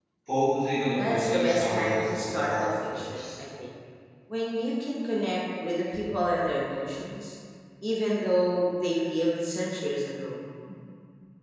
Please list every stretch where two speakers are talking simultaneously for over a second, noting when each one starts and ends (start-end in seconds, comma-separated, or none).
1.1-3.2